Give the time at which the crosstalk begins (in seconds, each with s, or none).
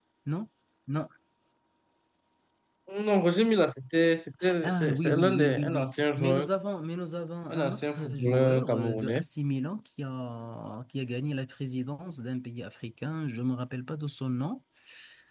4.6 s